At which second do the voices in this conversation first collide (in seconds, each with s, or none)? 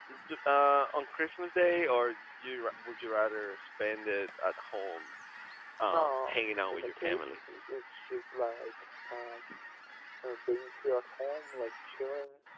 5.9 s